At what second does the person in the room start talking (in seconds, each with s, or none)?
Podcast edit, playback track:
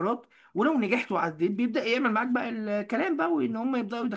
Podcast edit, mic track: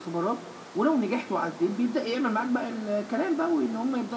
none